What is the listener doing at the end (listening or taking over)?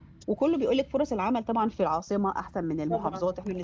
listening